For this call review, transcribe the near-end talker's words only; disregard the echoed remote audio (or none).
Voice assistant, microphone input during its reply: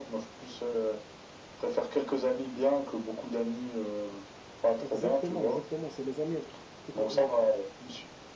Exactement, exactement. C'est les amis avec qui t'as- euh,